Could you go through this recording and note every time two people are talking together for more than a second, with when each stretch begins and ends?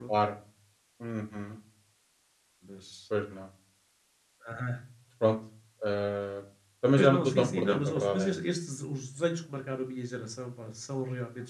7.0-8.3

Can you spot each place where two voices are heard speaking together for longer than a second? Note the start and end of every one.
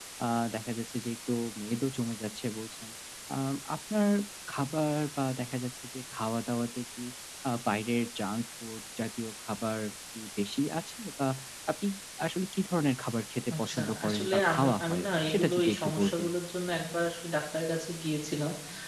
13.5-16.3

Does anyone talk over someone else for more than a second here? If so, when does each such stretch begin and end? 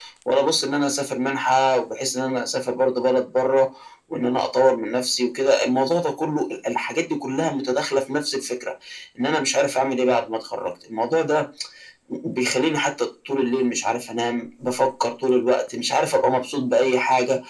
none

